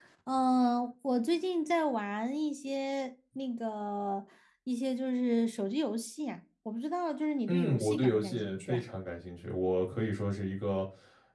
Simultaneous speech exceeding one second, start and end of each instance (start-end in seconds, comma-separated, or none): 7.5-8.8